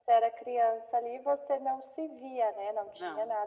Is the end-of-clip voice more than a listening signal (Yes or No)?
No